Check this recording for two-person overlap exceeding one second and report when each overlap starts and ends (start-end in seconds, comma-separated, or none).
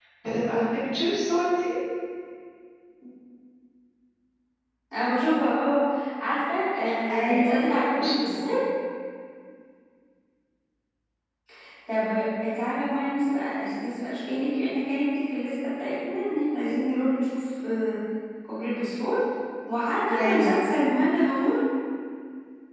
7.1-8.5